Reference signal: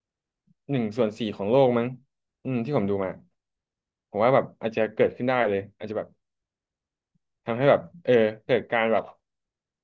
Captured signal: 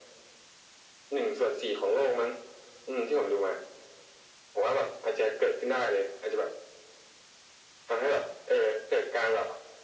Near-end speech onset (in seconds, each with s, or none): none